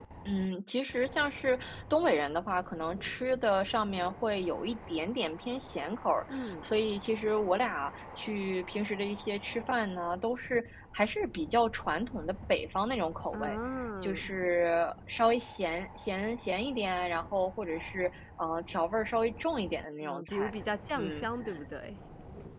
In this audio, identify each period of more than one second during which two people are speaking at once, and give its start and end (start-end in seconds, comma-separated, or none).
none